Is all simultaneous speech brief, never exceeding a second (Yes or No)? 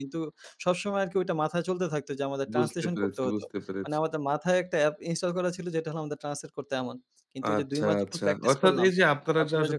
No